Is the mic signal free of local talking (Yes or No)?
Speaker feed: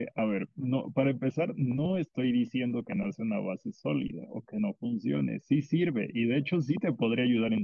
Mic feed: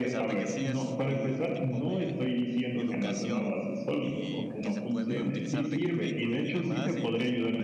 No